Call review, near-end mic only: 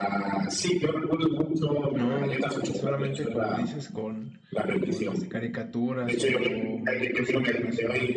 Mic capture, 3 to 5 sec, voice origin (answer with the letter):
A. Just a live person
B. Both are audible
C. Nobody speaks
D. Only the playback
B